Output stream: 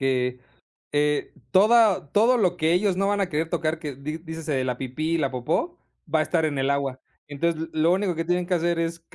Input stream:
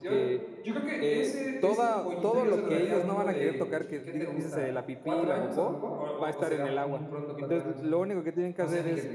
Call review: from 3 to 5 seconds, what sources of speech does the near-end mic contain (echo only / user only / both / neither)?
both